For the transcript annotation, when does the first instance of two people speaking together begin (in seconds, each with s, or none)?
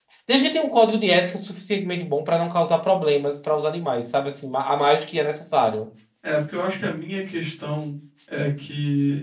none